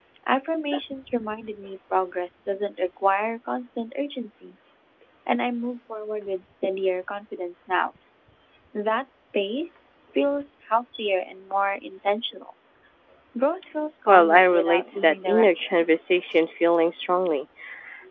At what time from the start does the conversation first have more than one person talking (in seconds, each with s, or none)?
14.1 s